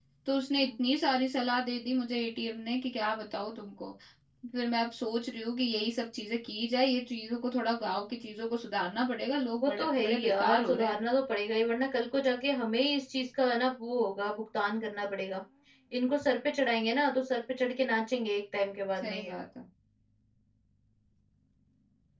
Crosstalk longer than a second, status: present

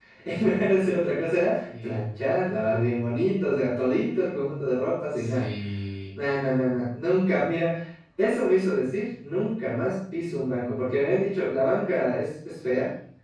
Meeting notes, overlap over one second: none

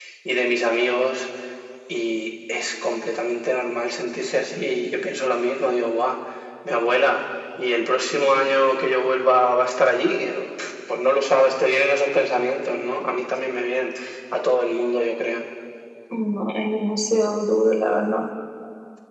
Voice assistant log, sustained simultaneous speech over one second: none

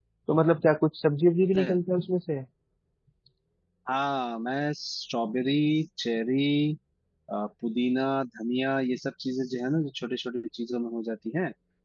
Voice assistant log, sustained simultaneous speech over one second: none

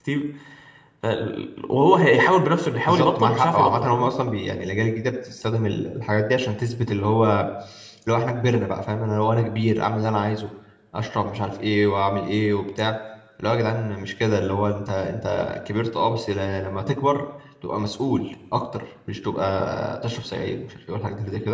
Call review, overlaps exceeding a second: present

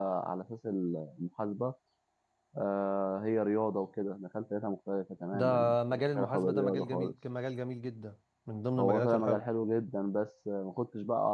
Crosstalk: present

